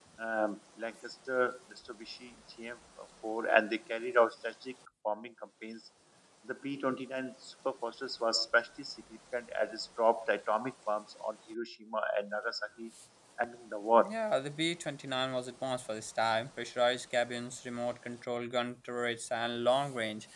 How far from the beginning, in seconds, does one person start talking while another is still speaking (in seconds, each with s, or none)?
none